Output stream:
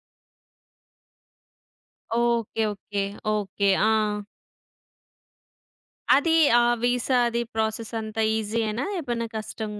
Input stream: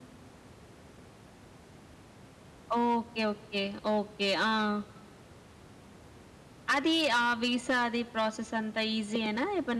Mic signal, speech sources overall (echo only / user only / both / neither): echo only